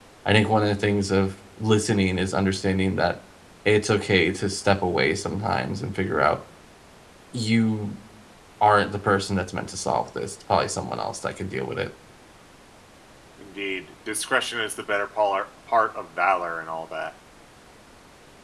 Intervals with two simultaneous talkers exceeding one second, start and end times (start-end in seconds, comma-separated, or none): none